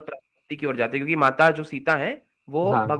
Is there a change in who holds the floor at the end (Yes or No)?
No